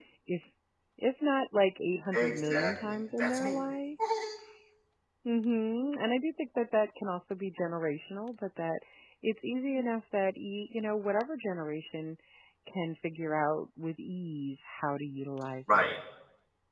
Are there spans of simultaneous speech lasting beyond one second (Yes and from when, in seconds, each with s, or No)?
Yes, from 2.1 s